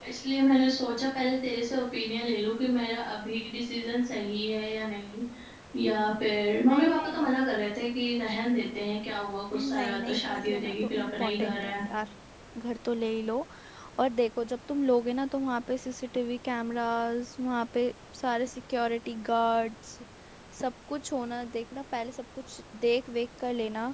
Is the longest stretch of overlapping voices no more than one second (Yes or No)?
No